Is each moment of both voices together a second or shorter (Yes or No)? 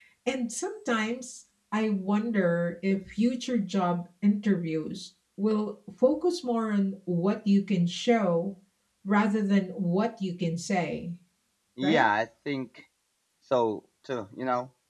Yes